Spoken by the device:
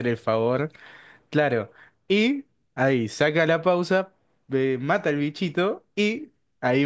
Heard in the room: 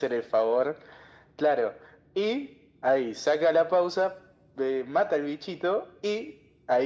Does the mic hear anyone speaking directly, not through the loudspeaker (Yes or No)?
No